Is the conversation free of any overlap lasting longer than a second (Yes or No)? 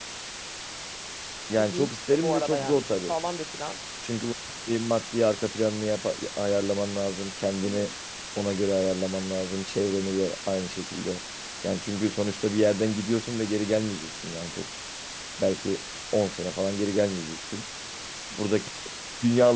No